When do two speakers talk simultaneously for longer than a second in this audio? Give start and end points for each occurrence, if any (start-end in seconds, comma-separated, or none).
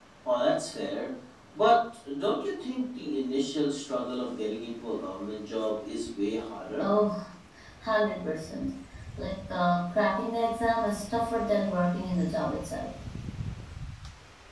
none